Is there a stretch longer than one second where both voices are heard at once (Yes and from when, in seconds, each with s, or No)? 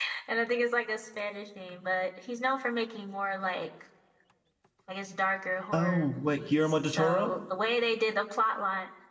Yes, from 5.7 s